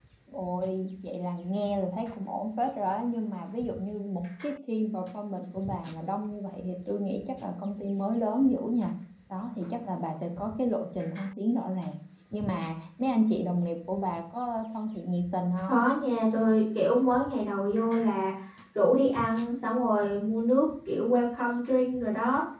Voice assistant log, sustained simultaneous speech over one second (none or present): none